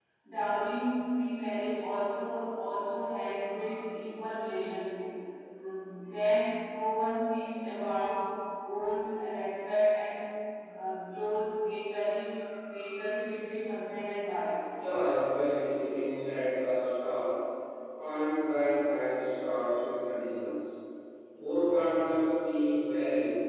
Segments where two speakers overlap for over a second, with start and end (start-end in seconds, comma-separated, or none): none